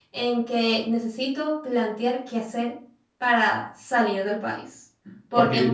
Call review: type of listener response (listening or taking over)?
taking over